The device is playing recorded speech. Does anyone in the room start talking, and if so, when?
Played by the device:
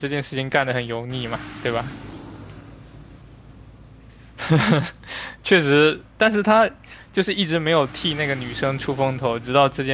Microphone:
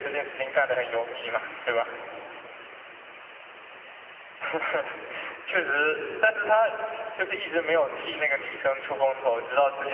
none

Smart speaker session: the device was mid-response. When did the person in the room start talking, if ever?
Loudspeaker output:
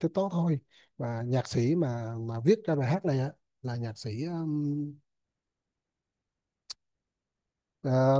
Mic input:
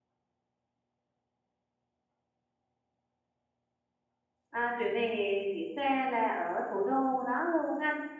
4 s

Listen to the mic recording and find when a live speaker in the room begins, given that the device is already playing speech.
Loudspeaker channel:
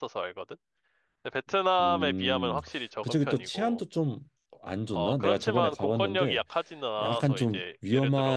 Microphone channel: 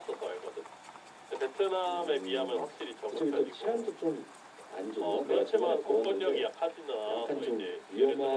none

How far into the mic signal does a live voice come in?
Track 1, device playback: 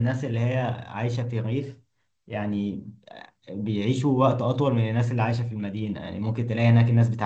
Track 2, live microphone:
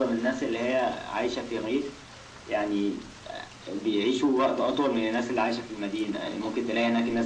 none

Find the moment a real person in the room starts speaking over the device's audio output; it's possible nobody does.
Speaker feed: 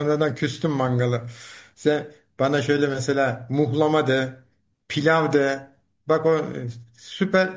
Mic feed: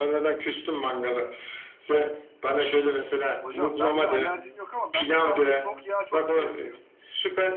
3 s

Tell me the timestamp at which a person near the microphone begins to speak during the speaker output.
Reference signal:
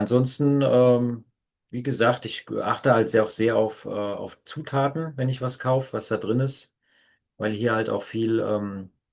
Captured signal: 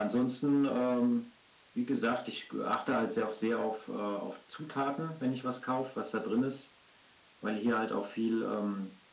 none

